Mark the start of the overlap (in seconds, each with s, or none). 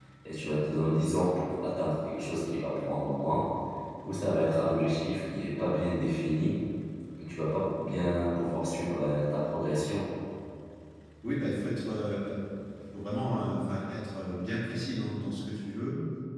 none